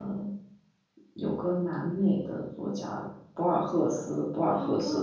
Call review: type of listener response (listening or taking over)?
taking over